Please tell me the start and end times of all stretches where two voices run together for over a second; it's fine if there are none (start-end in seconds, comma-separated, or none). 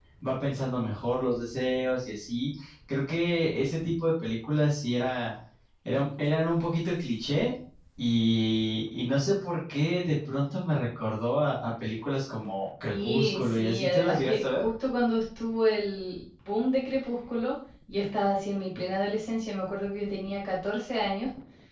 12.8-14.6